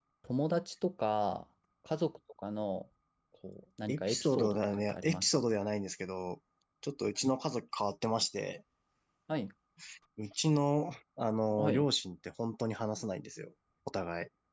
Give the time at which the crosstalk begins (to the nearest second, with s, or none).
4 s